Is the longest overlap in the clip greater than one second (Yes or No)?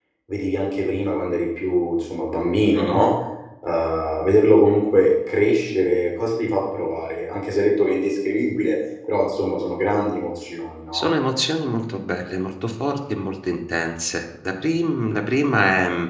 No